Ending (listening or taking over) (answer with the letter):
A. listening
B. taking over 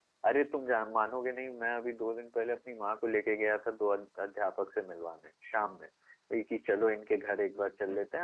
A